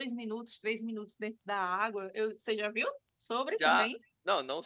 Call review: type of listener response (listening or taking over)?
taking over